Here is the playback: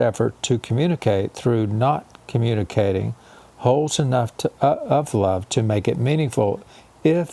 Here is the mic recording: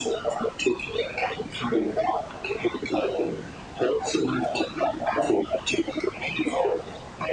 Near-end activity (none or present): none